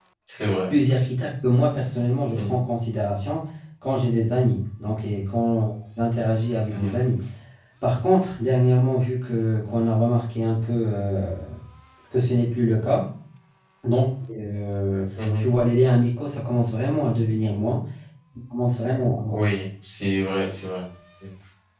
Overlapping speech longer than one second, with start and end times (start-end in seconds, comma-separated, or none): none